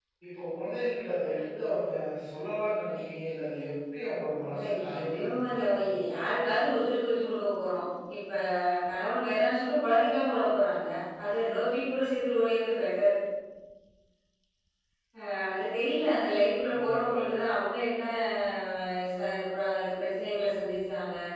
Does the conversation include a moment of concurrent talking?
Yes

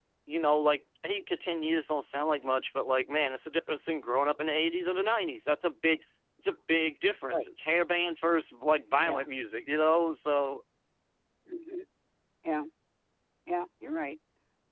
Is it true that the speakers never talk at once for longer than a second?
Yes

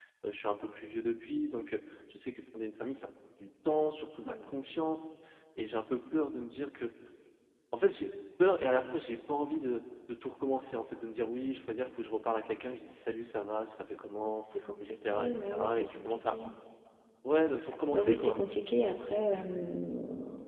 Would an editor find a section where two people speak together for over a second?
Yes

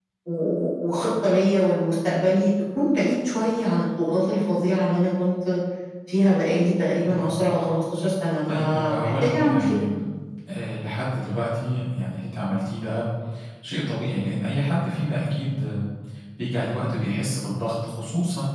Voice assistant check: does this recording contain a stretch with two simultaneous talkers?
Yes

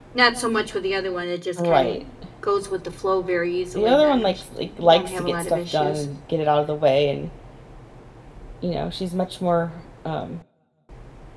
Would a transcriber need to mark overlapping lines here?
Yes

